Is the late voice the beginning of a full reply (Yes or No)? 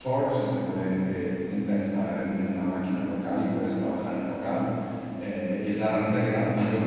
No